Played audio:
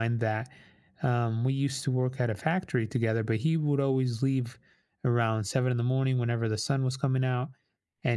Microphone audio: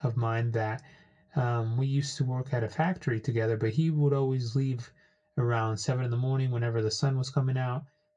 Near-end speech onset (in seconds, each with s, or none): none